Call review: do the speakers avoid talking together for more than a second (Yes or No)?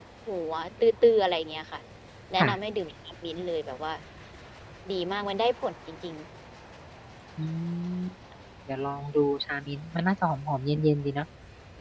Yes